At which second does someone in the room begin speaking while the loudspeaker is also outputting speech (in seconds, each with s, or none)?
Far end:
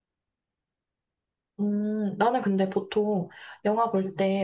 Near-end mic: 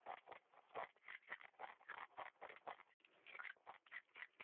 none